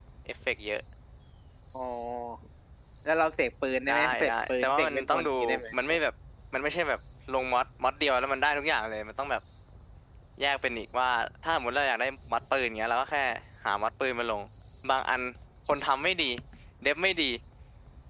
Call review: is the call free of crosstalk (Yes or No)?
No